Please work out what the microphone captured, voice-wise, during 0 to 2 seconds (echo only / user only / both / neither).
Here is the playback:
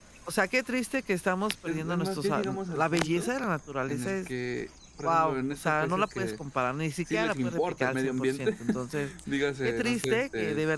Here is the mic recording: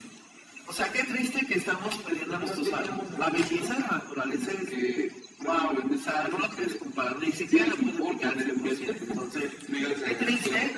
echo only